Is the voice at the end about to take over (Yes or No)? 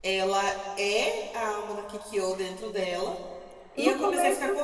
Yes